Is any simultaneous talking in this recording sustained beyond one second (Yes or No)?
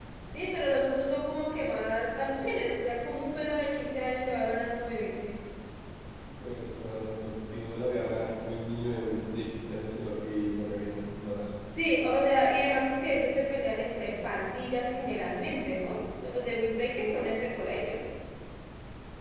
No